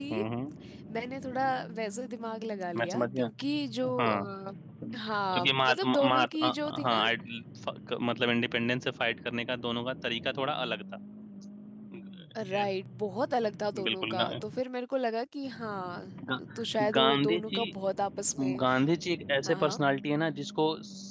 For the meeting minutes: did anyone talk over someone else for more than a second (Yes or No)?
Yes